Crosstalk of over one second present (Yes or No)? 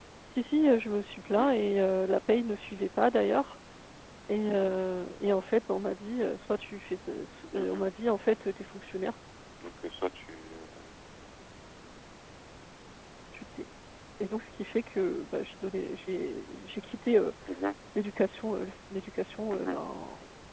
No